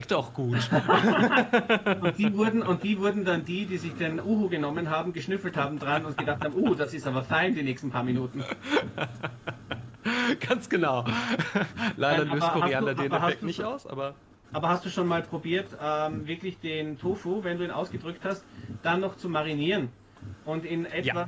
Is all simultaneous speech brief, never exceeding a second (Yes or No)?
No